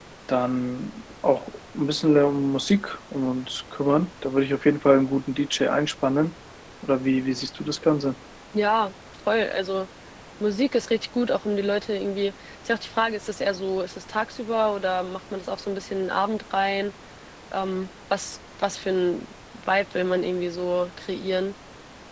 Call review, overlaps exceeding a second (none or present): none